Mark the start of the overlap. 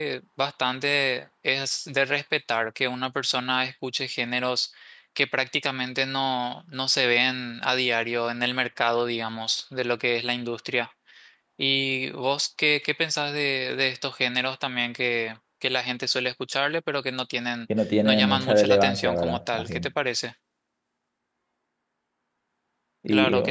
17.8 s

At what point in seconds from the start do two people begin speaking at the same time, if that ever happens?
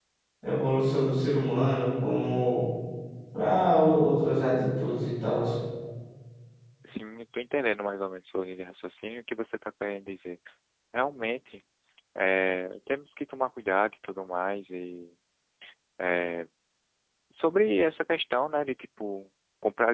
none

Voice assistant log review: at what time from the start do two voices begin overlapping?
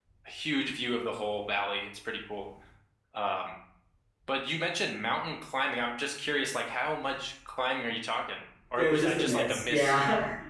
8.8 s

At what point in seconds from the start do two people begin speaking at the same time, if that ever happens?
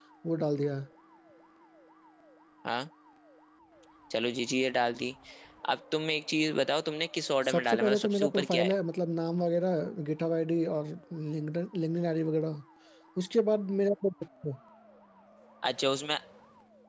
7.5 s

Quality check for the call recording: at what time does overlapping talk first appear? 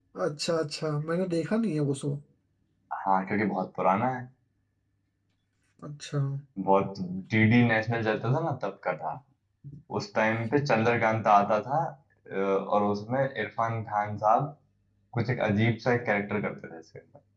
none

